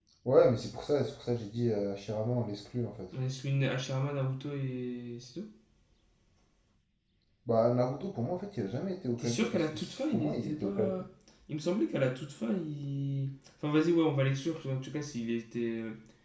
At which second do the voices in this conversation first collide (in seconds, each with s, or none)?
9.2 s